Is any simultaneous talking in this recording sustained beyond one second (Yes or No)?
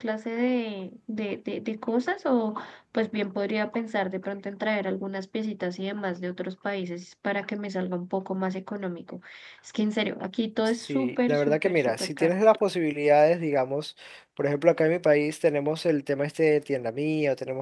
Yes